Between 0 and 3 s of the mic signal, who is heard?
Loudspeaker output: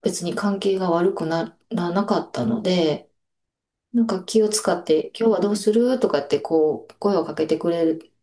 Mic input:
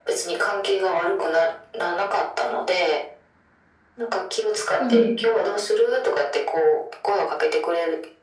echo only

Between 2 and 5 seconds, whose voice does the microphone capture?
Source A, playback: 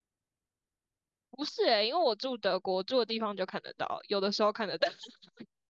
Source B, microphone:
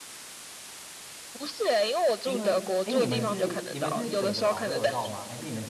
both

